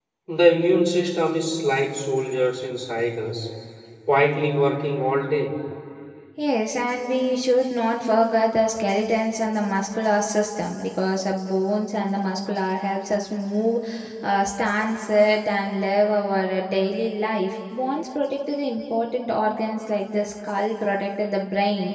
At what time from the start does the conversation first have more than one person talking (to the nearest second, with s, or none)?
none